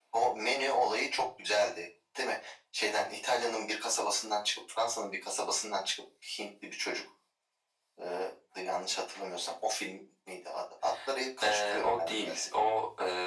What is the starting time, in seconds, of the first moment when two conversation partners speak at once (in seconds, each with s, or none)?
11.4 s